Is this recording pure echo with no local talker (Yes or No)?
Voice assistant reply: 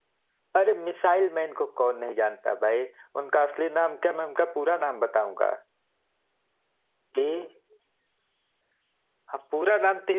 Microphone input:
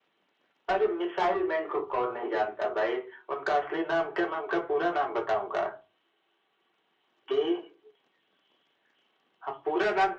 Yes